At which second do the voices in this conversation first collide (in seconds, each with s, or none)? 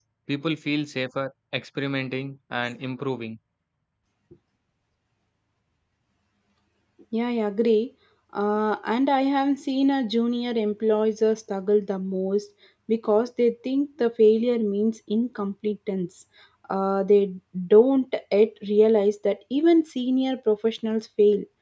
none